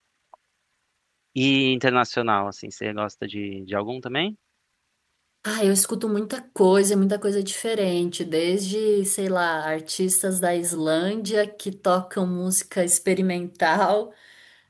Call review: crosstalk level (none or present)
none